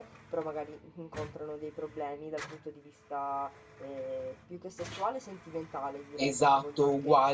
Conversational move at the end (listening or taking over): taking over